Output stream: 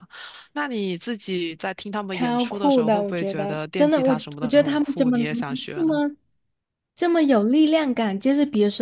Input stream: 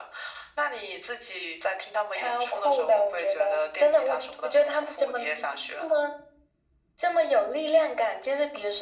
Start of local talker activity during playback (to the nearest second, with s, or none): none